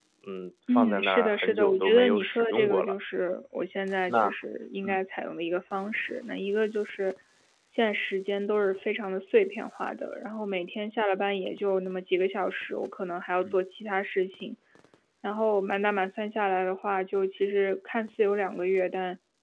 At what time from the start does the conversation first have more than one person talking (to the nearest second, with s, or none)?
1 s